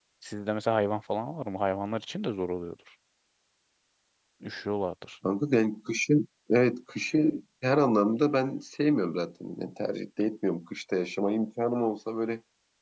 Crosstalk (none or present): none